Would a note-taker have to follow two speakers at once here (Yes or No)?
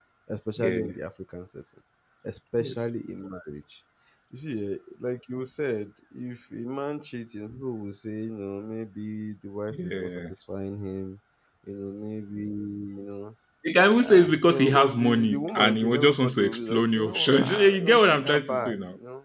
Yes